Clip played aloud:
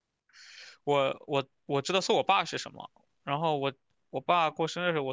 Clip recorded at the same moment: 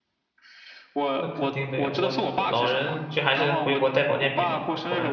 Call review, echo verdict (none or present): present